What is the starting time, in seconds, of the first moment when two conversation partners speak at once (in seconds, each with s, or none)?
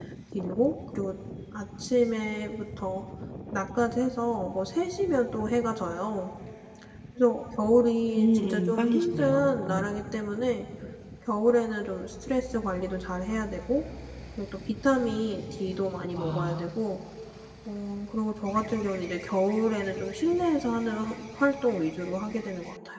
8.2 s